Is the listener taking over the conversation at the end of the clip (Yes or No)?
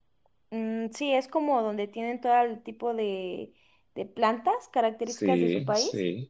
Yes